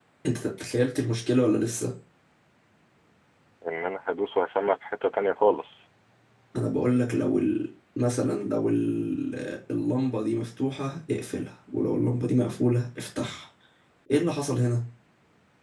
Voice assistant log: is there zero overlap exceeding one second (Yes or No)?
Yes